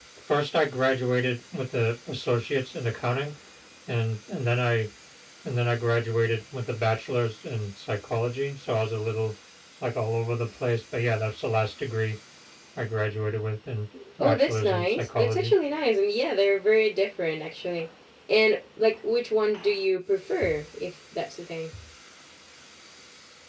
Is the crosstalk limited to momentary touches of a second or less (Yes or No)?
No